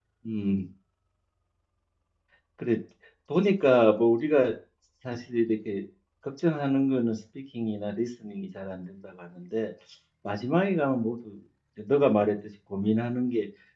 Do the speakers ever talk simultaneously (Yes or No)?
No